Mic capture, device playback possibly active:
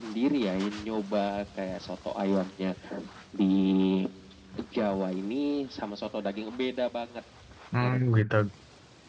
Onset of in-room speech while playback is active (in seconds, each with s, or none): 7.7 s